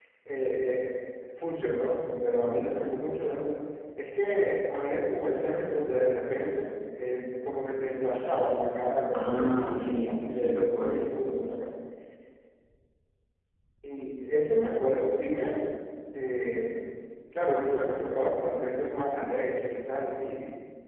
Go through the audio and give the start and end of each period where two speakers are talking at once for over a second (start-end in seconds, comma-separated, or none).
9.1-11.1